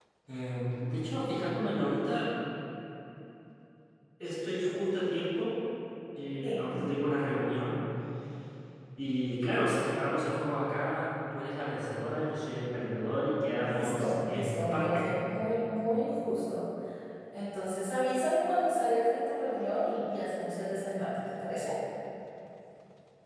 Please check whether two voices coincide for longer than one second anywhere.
Yes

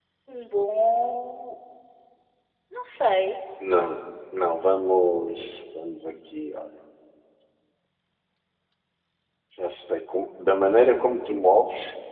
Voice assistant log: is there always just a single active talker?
Yes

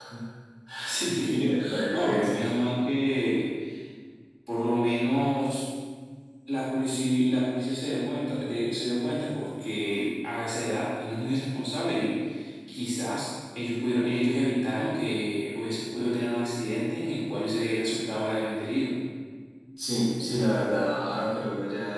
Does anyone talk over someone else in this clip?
Yes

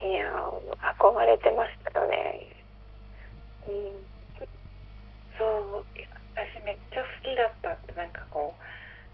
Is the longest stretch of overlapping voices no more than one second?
Yes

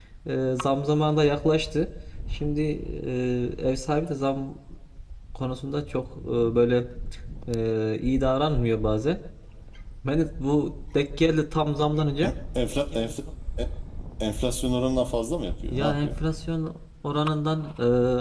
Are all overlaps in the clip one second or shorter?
Yes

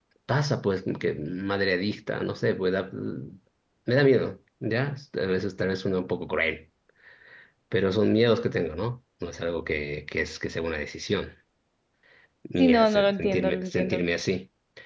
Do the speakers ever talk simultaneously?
Yes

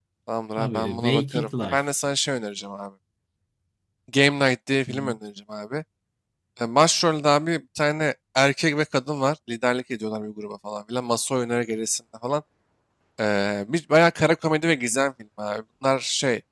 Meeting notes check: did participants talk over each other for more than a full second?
Yes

